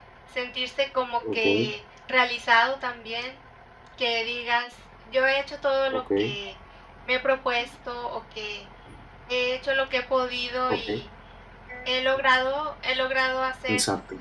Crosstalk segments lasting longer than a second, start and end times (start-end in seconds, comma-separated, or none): none